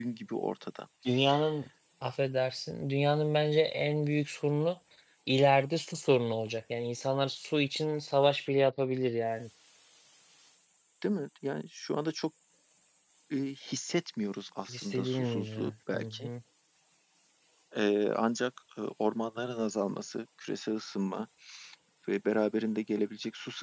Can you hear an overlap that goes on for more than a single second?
Yes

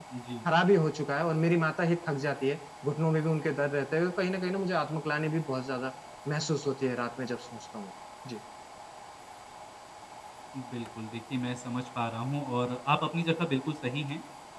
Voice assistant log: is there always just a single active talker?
Yes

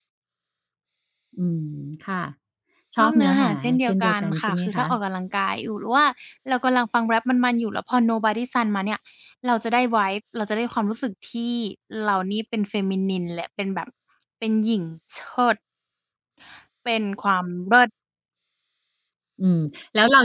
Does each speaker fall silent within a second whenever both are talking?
No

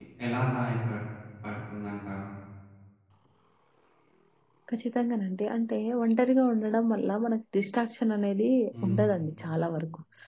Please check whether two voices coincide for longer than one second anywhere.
No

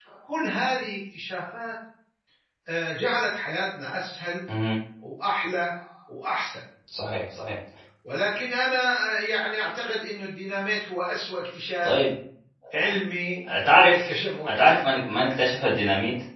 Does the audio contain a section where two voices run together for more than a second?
No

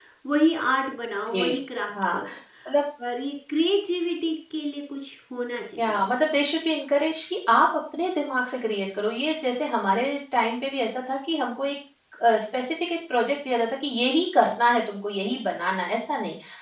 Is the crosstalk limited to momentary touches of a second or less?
Yes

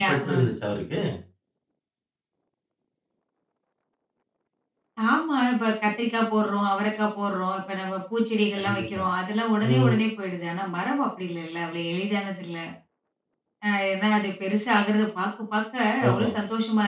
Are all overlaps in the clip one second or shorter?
Yes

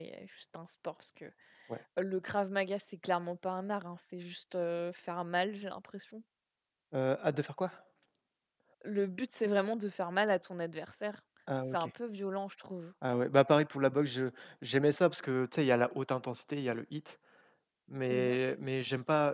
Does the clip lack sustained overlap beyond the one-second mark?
Yes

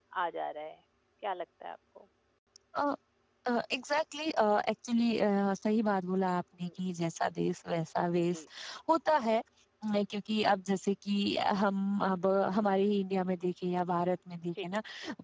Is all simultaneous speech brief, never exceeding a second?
Yes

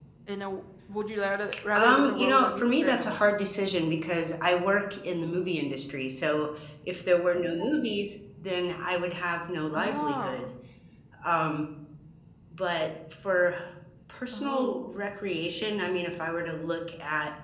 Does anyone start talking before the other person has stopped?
Yes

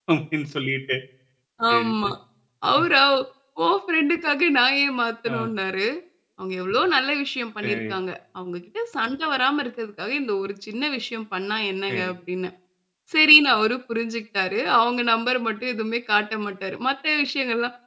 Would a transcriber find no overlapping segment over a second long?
Yes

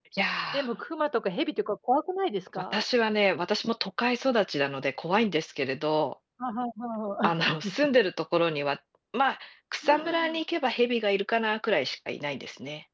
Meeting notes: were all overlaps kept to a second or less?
Yes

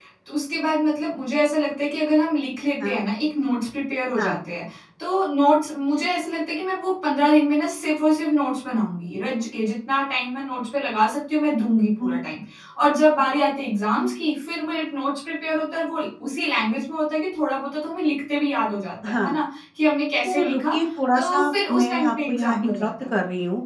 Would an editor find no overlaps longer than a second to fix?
No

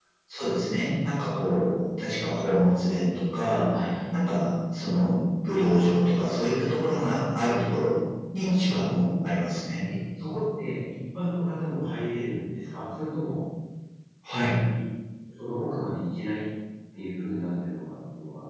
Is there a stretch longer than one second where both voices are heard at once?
No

